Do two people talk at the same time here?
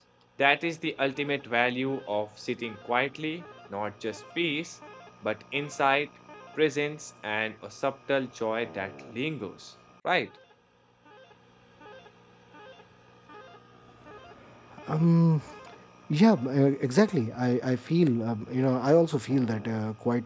No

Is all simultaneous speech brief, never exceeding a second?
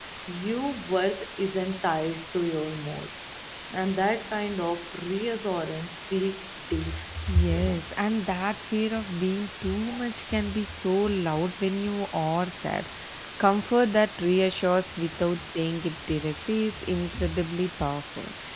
Yes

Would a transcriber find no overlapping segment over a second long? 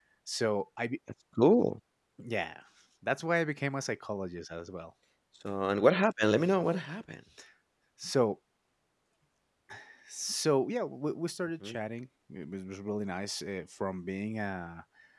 Yes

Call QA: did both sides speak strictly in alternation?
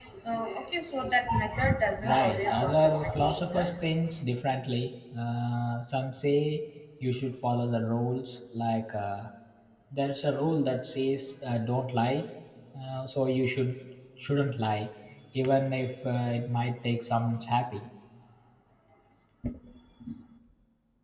No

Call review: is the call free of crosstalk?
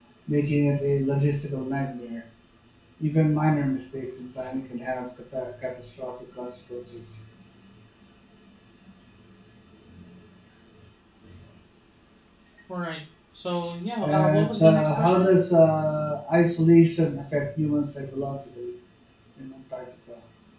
No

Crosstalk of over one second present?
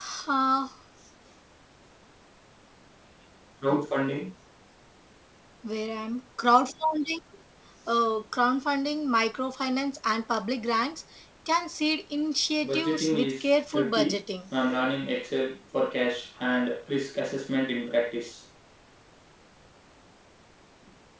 Yes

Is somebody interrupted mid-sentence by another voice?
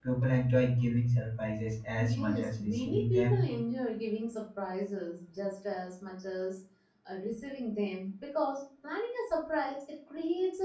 Yes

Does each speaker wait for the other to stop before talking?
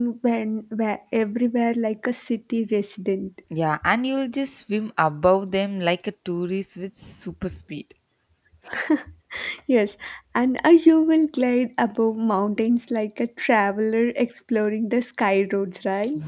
Yes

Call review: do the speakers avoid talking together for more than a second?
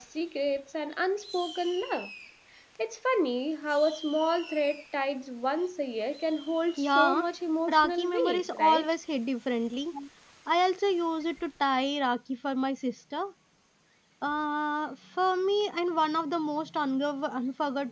No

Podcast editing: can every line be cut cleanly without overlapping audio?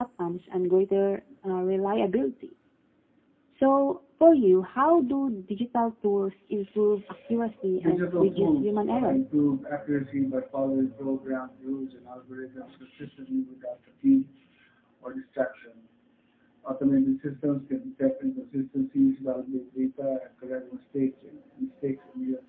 No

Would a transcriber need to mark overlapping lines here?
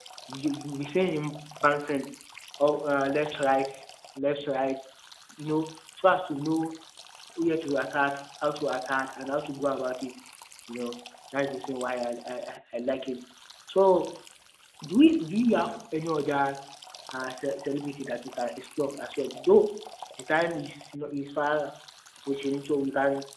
No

